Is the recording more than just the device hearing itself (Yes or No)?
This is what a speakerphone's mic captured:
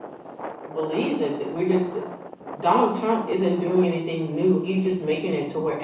Yes